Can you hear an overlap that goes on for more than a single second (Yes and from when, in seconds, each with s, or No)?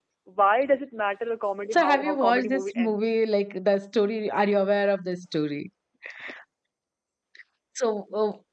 Yes, from 1.7 s